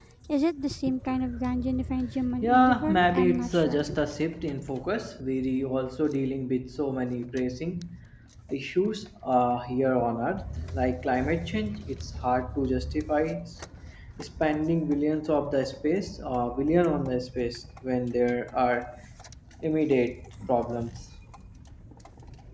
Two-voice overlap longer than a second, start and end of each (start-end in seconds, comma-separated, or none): 2.4-3.8